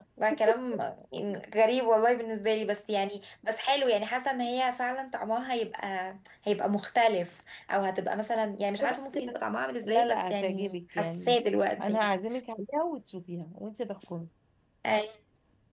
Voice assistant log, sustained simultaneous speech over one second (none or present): present